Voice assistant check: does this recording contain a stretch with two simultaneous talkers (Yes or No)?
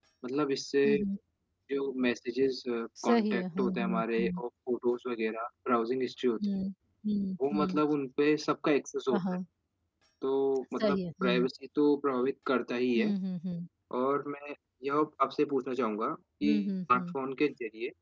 Yes